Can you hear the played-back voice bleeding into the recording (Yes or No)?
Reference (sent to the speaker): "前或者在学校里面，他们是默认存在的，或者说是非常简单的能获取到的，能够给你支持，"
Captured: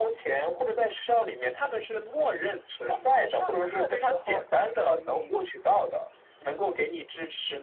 Yes